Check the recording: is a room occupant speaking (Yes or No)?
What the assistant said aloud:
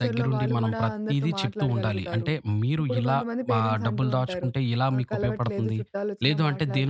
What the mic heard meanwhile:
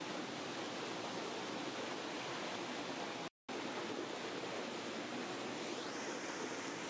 No